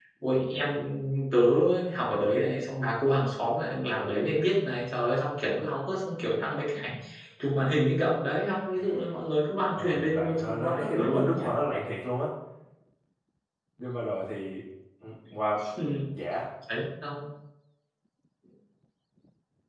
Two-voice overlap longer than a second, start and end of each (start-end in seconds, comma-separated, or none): 9.7-11.4